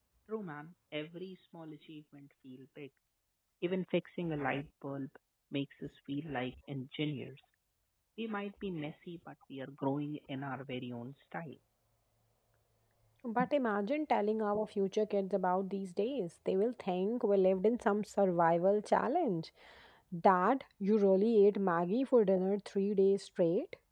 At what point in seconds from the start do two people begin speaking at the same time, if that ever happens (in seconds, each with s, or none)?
none